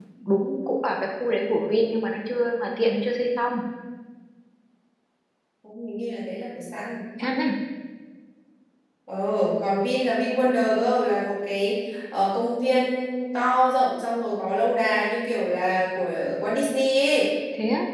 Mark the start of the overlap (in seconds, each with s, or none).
none